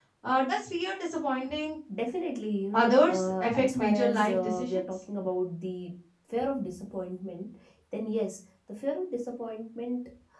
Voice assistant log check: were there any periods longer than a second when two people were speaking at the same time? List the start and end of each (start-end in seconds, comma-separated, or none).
2.7-4.8